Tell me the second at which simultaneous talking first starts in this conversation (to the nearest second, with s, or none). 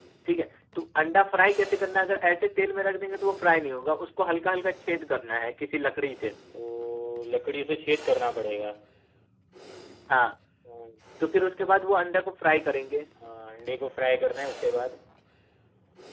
none